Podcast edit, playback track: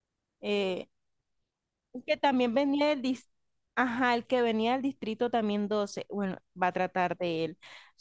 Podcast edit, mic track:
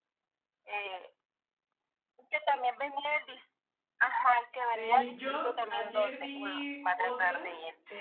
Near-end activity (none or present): present